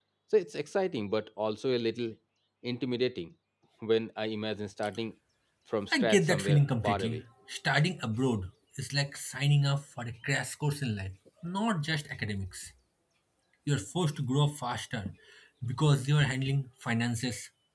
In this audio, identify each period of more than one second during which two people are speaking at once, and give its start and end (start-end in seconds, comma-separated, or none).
5.9-7.2